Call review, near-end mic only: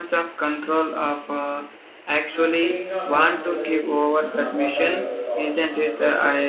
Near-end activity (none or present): present